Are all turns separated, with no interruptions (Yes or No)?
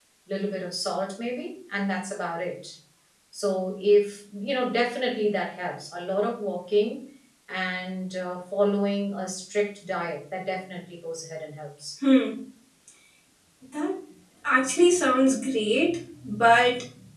Yes